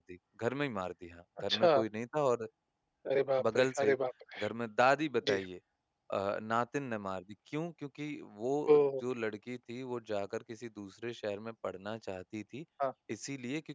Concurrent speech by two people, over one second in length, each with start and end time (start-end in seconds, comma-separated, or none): none